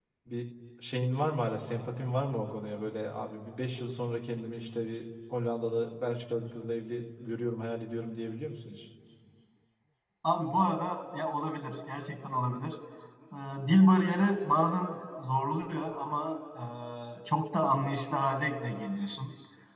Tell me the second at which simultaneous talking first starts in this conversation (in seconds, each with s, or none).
none